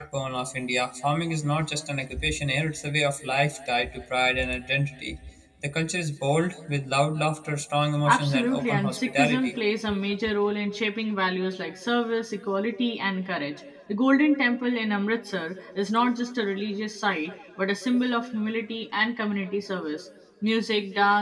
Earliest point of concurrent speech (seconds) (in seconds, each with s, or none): 8.1 s